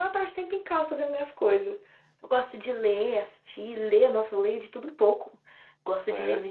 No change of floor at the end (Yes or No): Yes